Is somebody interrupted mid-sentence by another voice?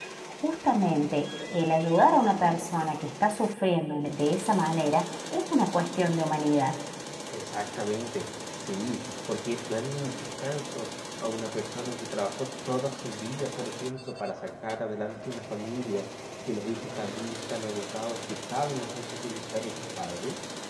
No

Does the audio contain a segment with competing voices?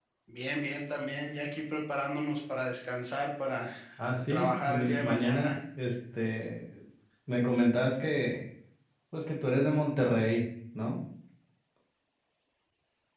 Yes, from 4.3 s

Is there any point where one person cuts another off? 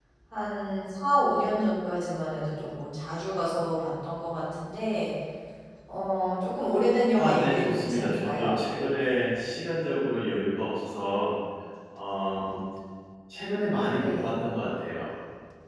Yes, from 7.2 s

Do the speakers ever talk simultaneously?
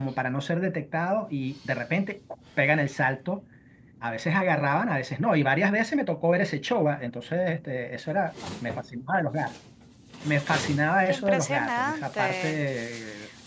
Yes, from 11.1 s

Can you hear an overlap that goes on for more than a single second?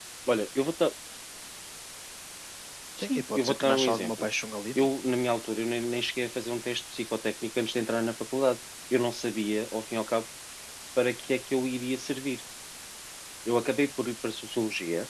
Yes, from 3.0 s

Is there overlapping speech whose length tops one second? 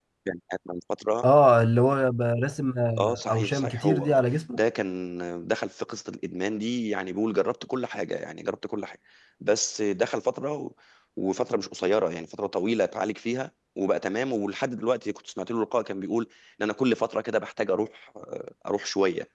Yes, from 3.0 s

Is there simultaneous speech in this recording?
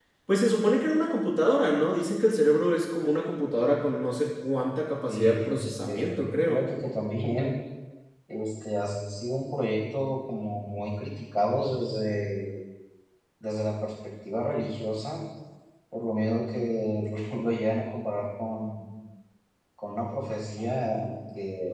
Yes, from 5.1 s

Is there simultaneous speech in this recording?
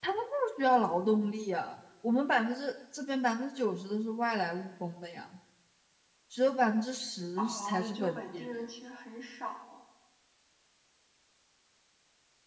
Yes, from 7.4 s

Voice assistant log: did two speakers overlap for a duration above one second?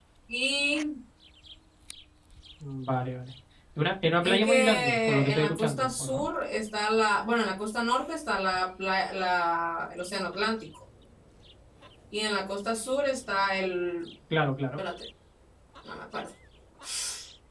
Yes, from 4.2 s

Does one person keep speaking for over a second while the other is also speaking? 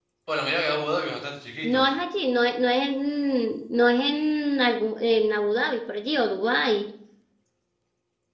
No

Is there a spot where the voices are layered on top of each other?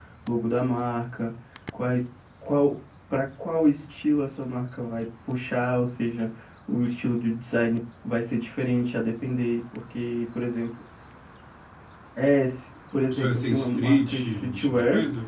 Yes, from 13.1 s

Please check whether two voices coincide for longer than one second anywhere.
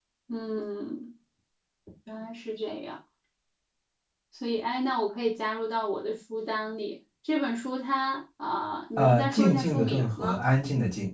Yes, from 9.0 s

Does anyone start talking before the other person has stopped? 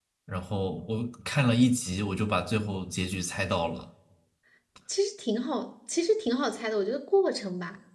No

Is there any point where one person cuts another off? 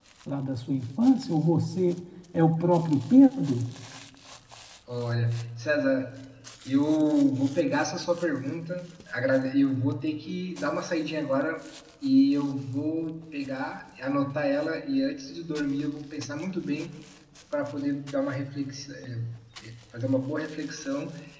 No

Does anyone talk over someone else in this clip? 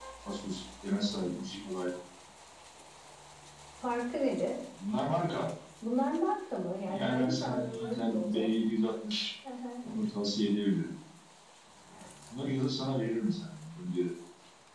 Yes, from 6.8 s

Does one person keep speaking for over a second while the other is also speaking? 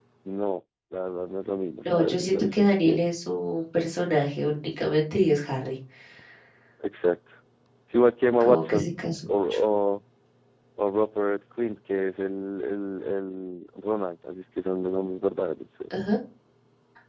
Yes, from 1.8 s

